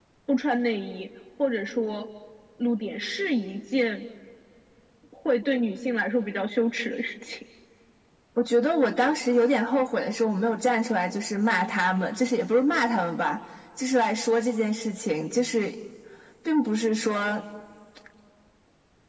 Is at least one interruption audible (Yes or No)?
No